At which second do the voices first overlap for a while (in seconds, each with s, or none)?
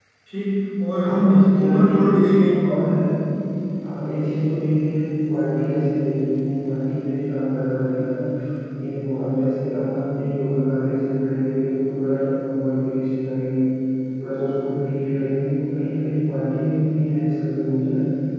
1.0 s